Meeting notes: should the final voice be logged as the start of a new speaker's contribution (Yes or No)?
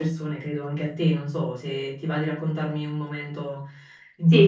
Yes